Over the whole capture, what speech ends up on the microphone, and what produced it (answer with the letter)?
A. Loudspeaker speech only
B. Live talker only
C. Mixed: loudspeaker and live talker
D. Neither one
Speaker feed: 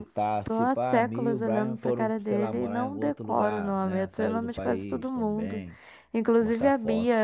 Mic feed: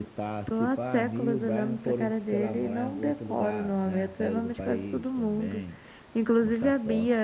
A